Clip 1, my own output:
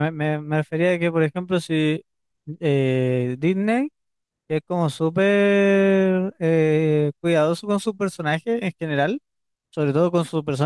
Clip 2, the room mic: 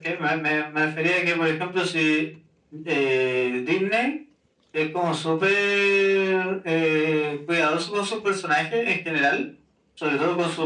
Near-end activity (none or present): none